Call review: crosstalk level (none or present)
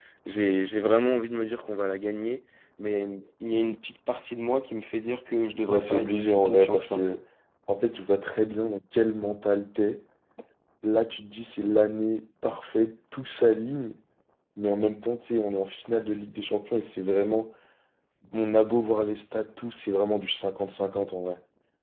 present